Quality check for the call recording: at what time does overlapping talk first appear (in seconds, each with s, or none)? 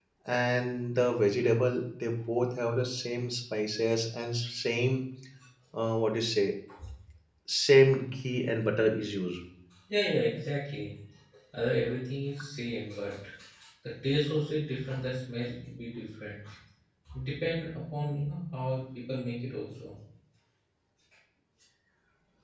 none